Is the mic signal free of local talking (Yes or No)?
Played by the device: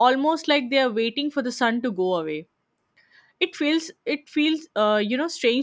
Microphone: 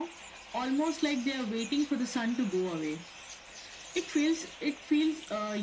Yes